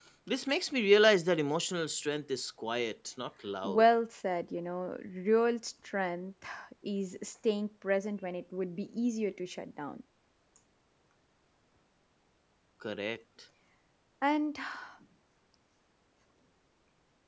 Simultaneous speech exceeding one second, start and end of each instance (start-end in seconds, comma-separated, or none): none